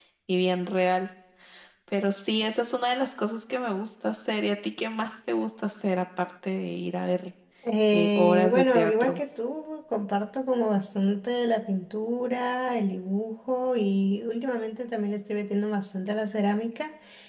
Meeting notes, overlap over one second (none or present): present